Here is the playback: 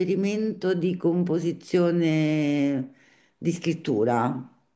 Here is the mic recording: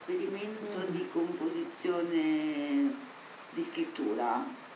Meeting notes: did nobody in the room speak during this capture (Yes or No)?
No